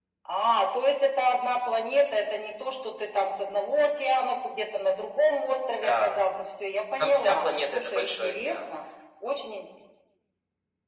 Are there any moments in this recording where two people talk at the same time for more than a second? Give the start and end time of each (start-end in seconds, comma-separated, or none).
7.0-8.6